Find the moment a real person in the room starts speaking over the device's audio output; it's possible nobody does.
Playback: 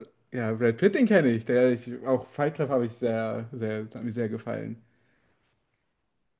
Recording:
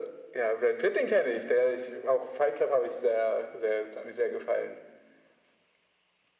none

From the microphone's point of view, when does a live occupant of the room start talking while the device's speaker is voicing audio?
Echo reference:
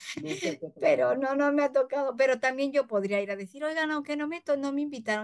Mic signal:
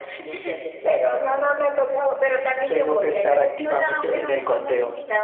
2.6 s

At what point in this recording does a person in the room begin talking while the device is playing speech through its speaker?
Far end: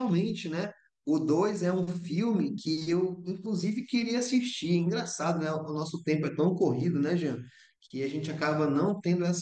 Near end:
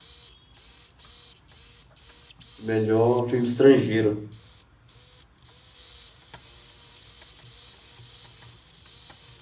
2.5 s

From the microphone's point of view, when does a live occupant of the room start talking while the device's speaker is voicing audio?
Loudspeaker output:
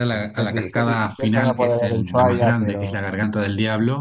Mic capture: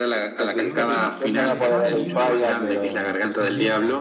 0.4 s

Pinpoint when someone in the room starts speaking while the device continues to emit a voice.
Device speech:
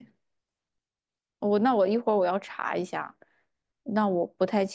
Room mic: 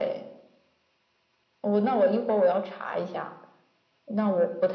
none

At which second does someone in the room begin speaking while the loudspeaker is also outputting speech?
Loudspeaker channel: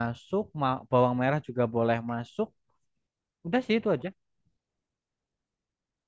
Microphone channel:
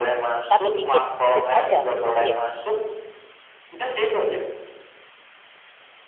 0.5 s

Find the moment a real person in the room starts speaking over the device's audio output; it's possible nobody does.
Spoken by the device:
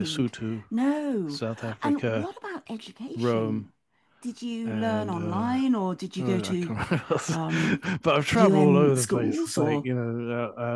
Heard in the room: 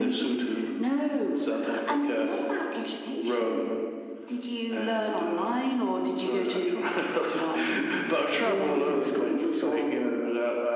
none

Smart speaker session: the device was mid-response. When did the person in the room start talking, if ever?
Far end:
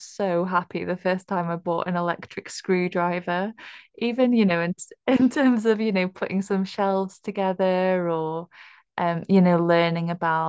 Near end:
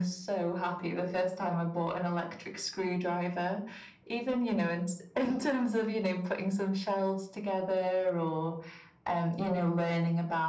none

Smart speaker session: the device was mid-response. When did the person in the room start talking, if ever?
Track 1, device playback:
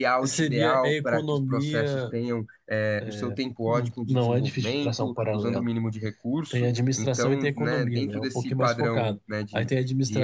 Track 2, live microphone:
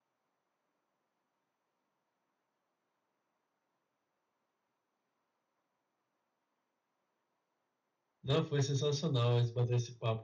8.2 s

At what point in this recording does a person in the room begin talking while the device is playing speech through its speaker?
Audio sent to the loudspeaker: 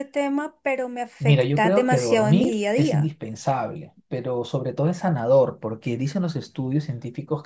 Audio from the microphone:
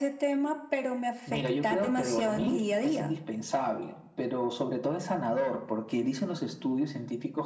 none

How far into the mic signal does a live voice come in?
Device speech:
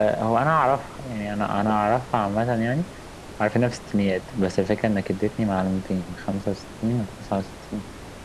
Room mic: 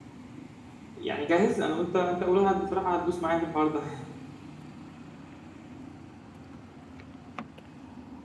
1.0 s

